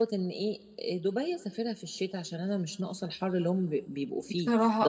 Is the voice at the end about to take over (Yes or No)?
No